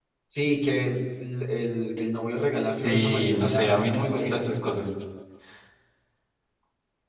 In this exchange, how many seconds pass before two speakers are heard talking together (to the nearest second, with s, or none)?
3 s